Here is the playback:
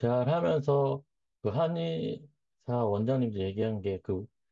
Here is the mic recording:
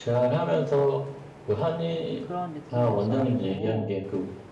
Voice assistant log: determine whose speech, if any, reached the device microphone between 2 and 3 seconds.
both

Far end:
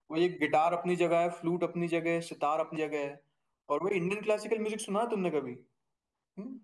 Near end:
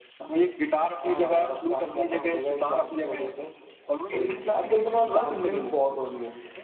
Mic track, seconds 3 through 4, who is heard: both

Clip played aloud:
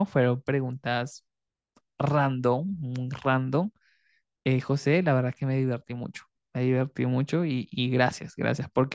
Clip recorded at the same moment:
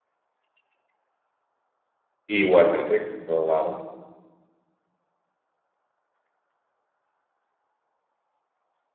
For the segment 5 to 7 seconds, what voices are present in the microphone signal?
neither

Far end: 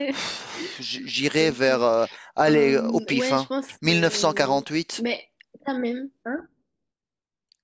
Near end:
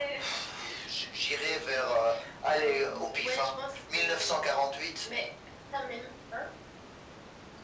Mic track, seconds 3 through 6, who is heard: echo only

